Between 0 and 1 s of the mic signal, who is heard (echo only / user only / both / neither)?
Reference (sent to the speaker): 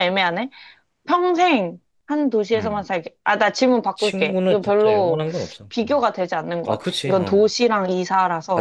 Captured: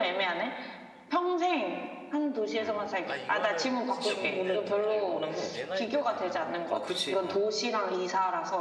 echo only